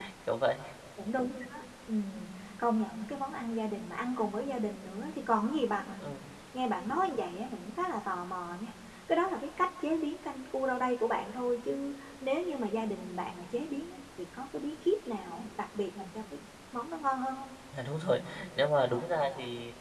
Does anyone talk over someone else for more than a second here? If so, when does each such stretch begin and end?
none

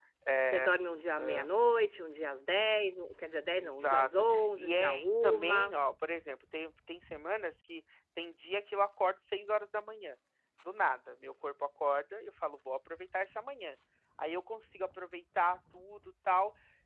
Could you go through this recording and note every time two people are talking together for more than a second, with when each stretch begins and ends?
3.6-5.7

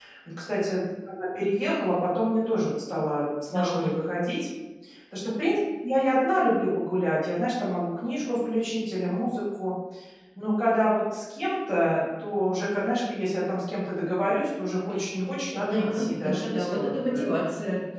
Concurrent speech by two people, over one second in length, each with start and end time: 15.1-17.1

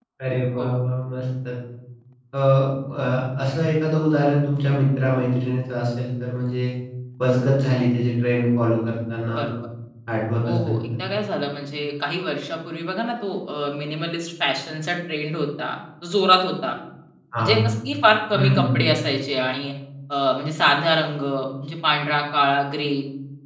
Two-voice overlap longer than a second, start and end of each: none

